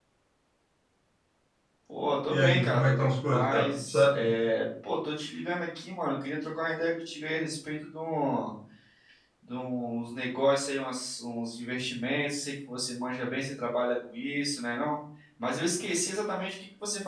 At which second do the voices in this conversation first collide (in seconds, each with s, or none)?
2.3 s